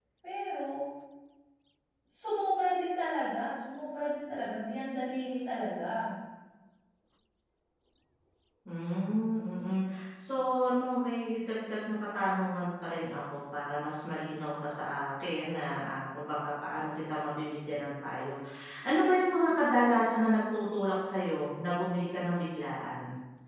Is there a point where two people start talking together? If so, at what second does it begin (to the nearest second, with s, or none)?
none